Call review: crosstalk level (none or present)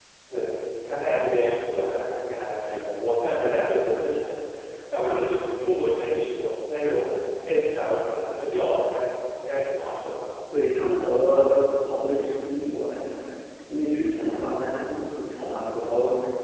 none